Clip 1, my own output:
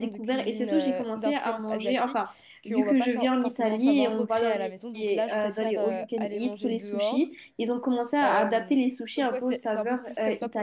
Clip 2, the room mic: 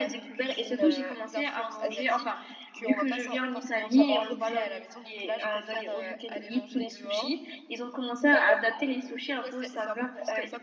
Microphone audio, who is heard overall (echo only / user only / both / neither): echo only